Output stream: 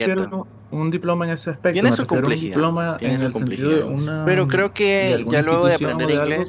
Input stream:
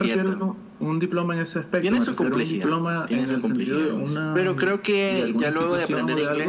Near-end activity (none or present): none